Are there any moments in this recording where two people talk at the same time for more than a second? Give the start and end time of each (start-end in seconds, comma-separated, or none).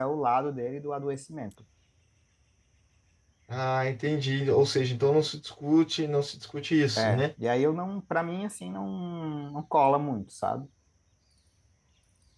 none